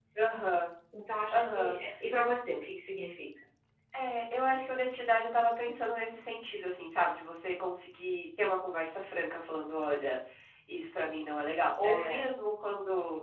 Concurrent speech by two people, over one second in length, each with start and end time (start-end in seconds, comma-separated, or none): none